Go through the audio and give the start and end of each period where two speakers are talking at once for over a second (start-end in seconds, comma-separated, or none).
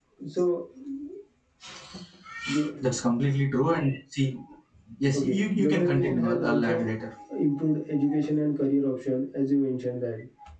5.1-6.9